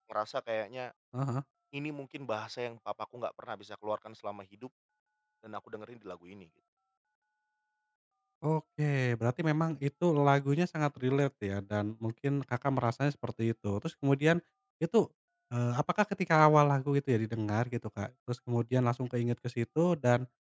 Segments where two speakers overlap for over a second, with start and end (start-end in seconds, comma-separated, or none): none